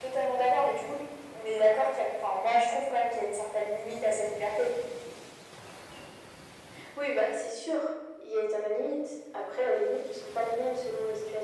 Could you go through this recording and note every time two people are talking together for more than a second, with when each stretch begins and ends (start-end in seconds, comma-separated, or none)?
none